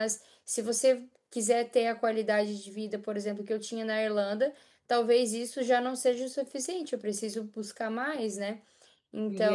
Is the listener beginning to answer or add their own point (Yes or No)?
Yes